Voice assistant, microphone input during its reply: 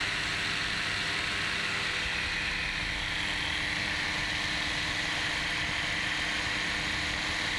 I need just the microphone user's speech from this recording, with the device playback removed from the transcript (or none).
none